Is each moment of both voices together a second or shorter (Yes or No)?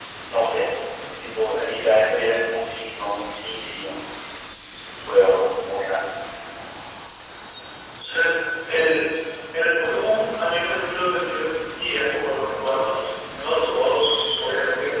Yes